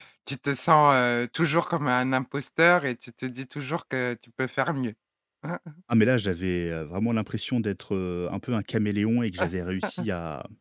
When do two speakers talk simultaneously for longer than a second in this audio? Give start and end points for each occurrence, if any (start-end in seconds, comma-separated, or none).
none